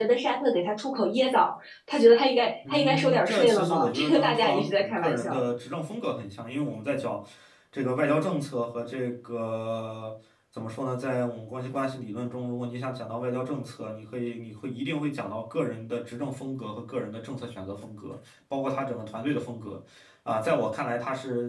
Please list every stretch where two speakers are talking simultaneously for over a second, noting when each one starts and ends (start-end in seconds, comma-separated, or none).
2.7-5.4